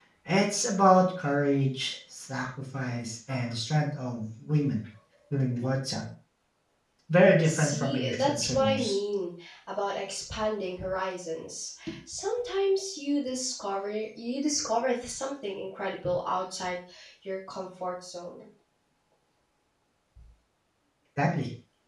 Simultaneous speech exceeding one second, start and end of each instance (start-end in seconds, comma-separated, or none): 7.4-9.0